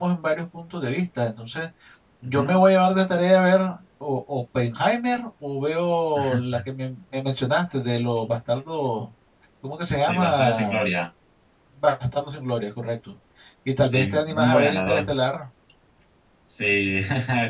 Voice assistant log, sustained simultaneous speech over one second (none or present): present